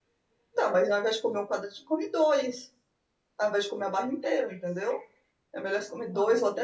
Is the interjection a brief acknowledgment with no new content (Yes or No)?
Yes